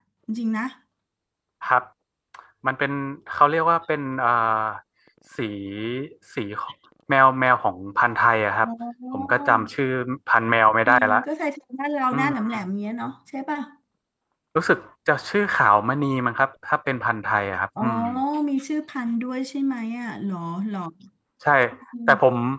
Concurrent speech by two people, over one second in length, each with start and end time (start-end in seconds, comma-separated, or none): none